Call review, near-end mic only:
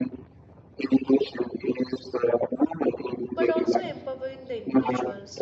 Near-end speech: present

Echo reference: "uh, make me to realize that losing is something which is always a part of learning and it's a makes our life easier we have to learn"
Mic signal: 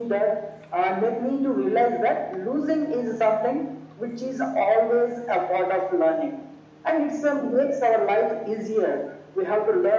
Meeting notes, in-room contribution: none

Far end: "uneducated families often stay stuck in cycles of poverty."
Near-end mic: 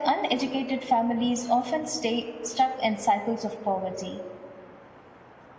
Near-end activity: none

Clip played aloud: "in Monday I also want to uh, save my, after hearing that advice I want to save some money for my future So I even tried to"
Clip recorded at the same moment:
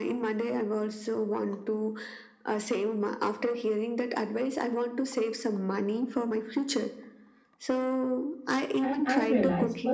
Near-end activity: present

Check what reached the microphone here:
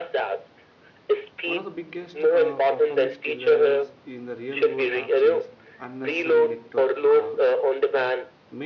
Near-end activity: present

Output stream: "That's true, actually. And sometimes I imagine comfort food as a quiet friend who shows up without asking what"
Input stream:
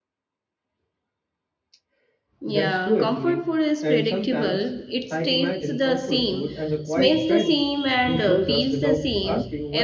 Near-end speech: present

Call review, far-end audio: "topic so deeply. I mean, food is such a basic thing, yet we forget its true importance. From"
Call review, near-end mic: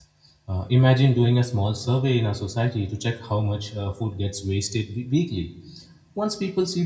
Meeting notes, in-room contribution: present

